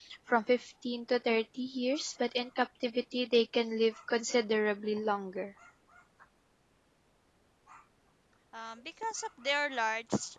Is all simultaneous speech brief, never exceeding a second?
Yes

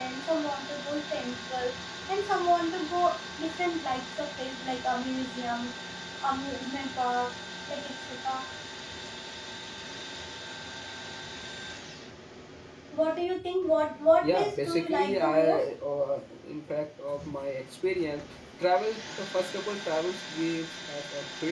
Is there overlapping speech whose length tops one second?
Yes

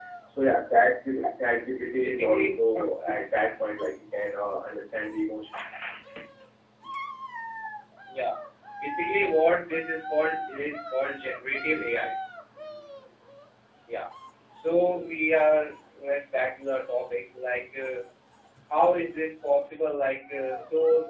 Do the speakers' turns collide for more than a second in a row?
Yes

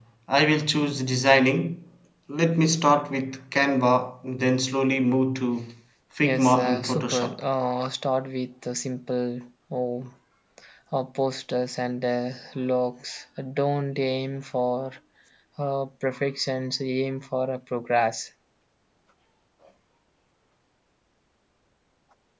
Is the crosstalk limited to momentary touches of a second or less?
No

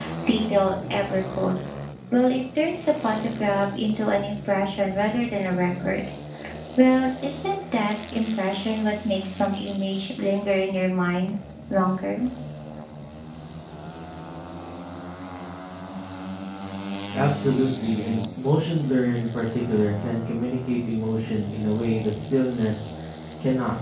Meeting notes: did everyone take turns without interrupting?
Yes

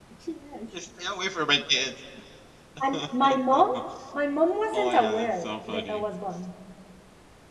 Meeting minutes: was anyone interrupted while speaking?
Yes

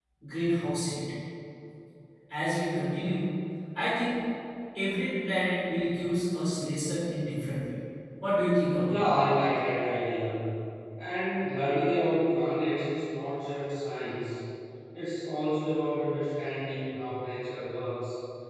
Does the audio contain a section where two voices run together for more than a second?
No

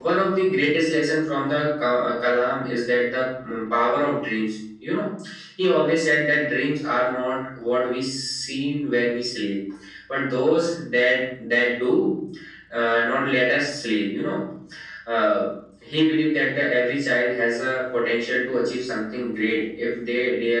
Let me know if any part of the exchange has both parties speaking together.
No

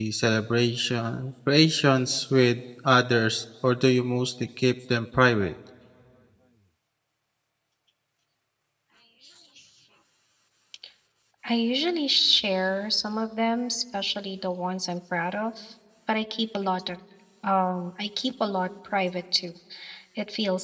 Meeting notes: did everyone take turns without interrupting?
Yes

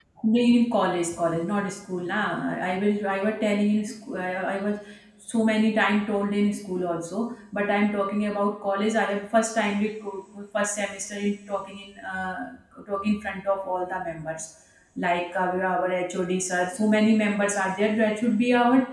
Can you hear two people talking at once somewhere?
No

